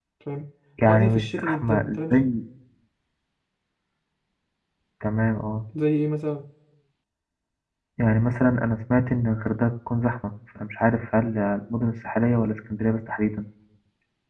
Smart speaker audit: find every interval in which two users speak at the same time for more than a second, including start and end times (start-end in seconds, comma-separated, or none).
0.9-2.1